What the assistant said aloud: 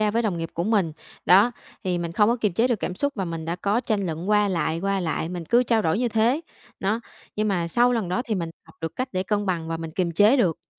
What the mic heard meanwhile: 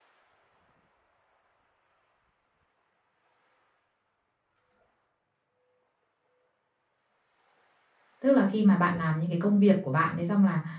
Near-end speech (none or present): present